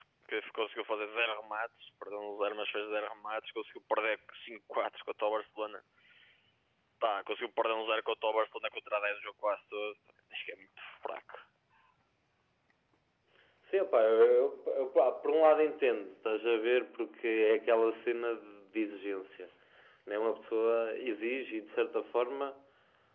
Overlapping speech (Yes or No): No